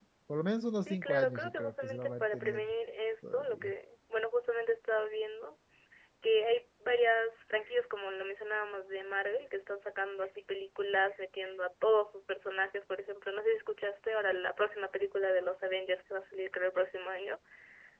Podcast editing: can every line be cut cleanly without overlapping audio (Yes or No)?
No